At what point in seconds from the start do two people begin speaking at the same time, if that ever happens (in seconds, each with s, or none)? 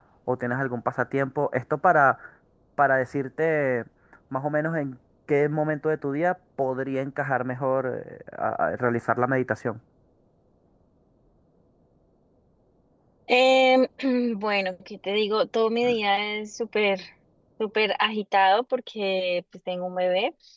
none